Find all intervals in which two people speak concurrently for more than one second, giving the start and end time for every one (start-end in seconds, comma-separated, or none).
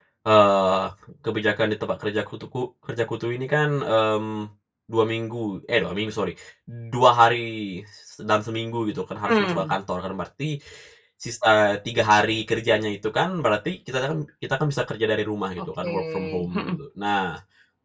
15.6-16.8